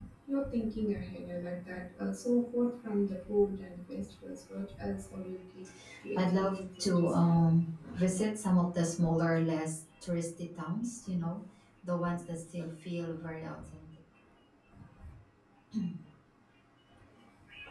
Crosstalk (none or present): present